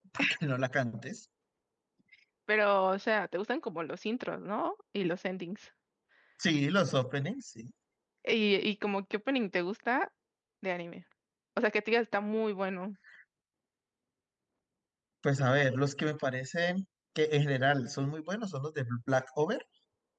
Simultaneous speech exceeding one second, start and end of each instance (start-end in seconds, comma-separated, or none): none